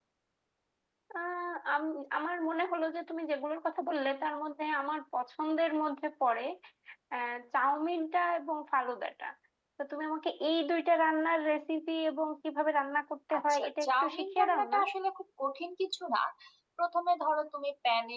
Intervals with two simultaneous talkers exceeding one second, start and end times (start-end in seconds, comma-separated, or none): 13.4-14.8